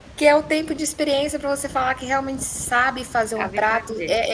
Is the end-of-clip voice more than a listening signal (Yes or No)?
No